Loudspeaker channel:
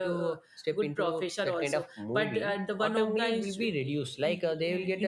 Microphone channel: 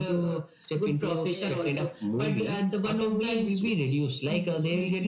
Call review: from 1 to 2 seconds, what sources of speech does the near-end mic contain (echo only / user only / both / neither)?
both